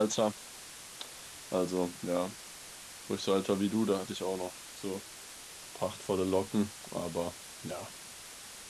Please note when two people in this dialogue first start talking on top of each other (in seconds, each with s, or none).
none